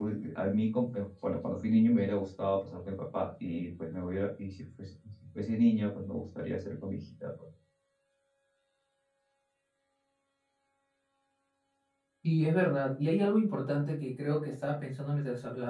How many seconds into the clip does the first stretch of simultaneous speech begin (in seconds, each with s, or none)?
none